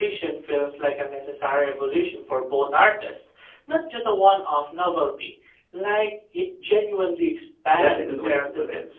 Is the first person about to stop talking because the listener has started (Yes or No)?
Yes